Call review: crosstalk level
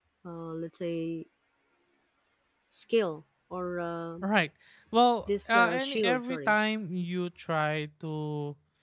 present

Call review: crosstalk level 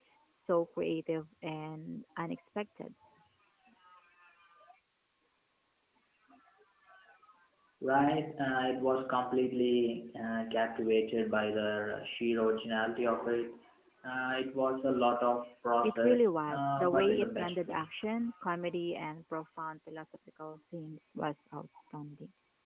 present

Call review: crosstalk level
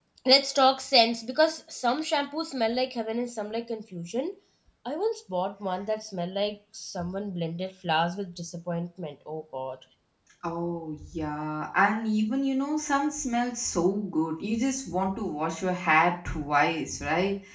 none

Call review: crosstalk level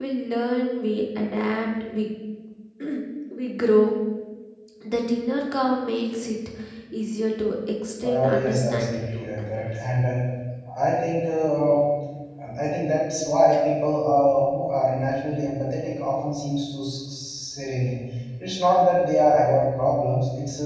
present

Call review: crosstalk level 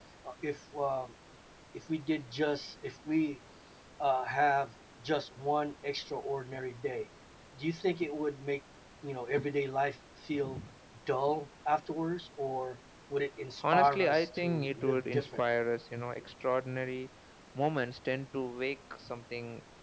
present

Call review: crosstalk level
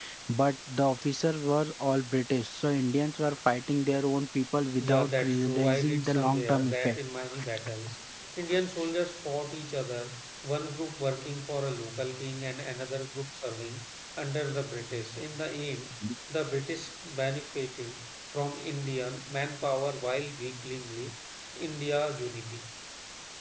present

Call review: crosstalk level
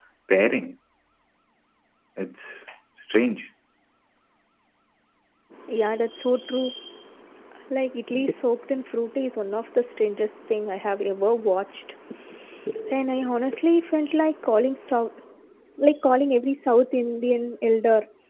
none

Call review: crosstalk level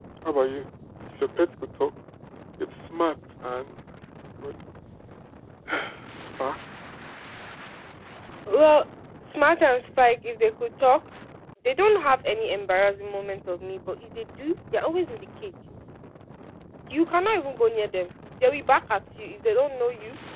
none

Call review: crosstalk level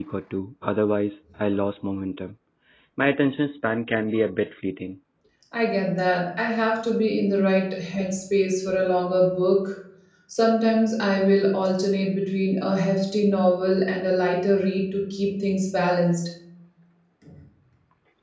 none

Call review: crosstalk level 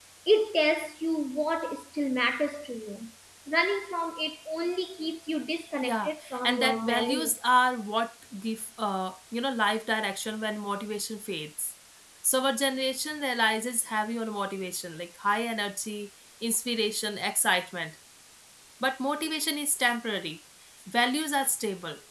present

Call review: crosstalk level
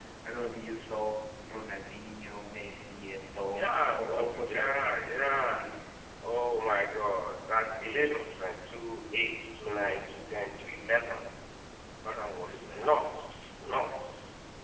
present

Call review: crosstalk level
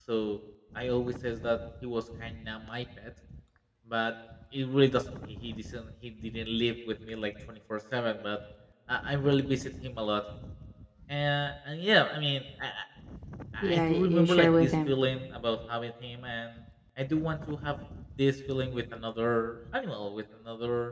present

